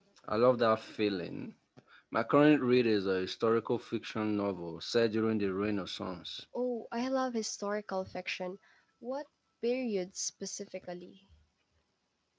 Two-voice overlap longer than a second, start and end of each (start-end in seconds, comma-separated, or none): none